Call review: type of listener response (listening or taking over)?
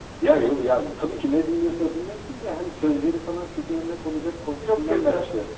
listening